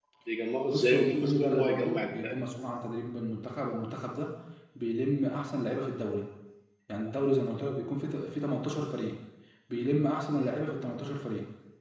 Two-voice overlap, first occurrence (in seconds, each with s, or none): 0.7 s